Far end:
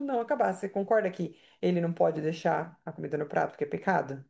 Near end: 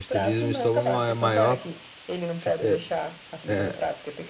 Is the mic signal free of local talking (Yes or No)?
No